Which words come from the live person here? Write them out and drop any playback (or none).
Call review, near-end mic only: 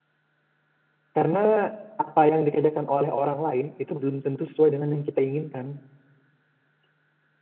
karena apa yang dikerjakan oleh orang lain itu belum tentu sesuai dengan yang kita inginkan.